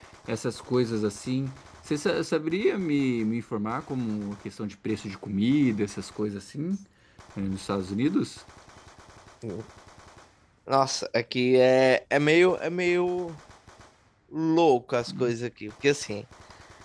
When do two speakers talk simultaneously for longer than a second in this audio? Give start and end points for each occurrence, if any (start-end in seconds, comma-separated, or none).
none